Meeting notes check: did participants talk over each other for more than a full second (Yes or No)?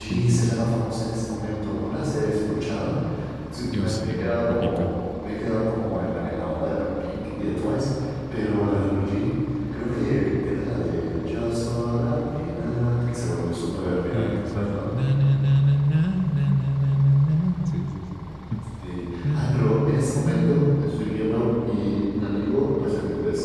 Yes